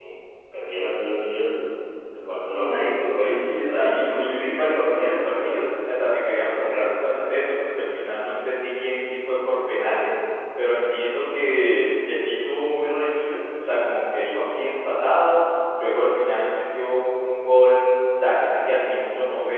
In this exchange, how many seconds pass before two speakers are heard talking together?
3.2 s

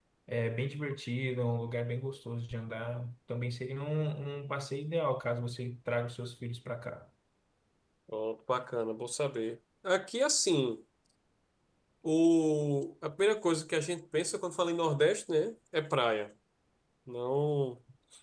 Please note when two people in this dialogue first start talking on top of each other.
none

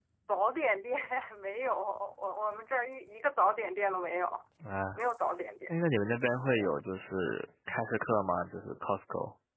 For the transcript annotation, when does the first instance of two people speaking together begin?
none

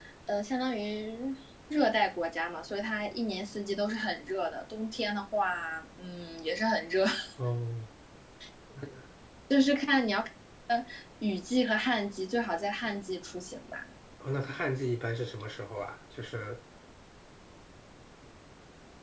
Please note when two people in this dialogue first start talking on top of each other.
none

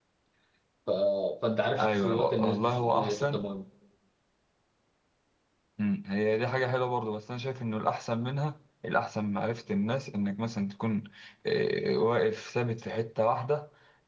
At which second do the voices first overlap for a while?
1.8 s

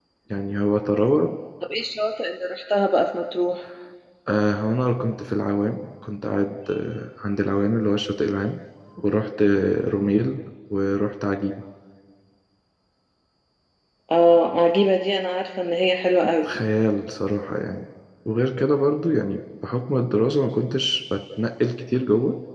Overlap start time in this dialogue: none

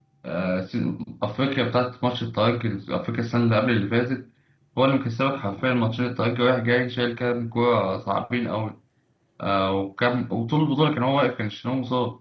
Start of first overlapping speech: none

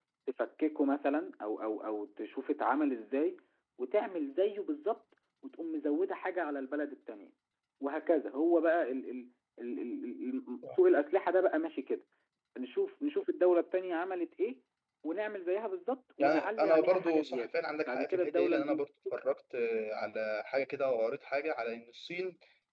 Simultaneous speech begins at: 16.2 s

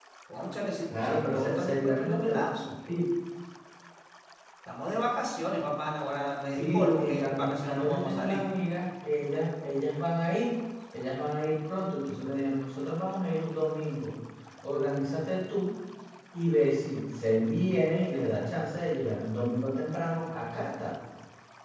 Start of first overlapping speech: 1.0 s

